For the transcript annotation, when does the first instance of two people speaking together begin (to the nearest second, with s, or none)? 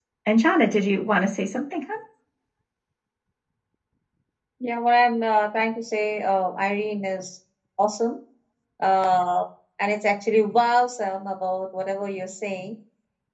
none